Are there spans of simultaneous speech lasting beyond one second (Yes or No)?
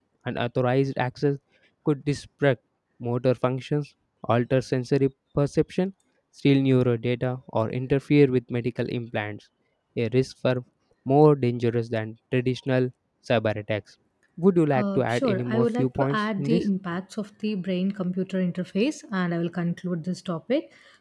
Yes